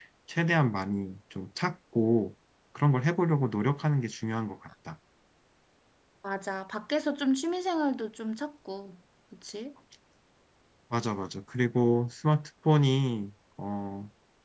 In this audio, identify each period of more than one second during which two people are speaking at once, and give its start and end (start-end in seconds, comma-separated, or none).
none